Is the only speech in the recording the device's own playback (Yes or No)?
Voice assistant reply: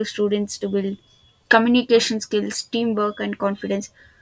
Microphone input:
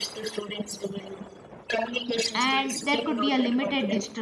No